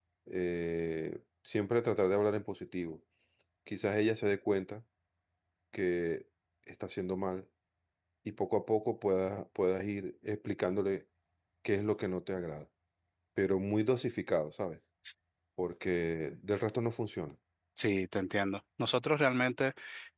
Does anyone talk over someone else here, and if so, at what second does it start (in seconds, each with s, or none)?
none